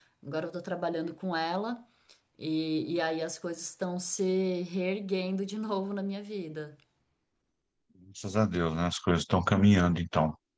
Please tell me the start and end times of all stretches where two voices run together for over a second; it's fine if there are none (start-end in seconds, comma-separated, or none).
none